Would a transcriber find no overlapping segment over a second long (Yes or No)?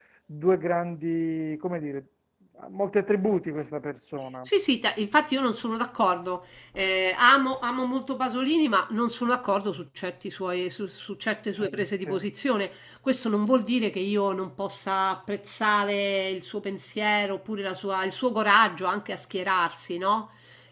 Yes